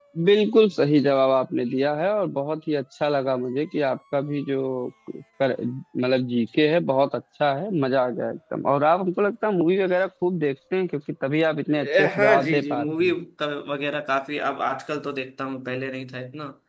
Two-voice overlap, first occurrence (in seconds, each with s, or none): 11.7 s